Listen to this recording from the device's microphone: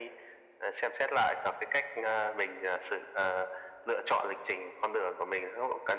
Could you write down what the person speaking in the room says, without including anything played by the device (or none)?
none